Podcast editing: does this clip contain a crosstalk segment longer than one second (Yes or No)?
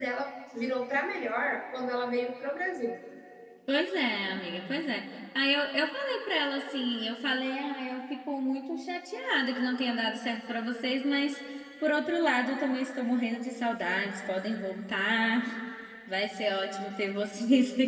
No